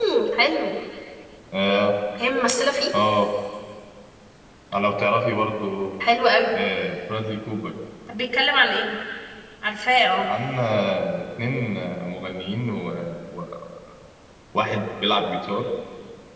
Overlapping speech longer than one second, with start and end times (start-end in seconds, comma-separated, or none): none